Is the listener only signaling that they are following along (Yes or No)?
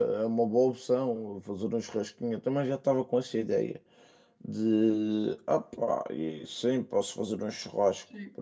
No